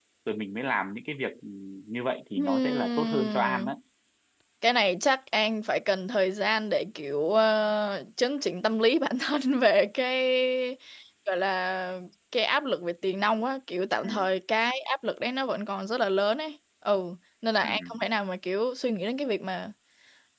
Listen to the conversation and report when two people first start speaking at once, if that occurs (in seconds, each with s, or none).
2.4 s